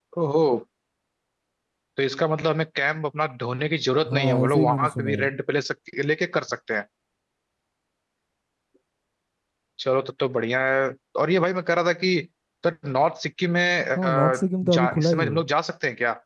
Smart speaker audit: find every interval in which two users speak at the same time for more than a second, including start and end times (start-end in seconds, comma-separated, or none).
4.1-5.3, 14.0-15.4